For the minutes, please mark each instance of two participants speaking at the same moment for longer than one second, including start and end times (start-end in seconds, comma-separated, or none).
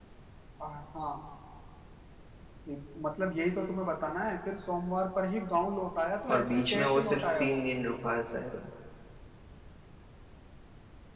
6.3-7.6